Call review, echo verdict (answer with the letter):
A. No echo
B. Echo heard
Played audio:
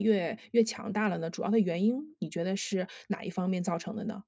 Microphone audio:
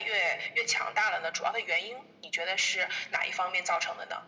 B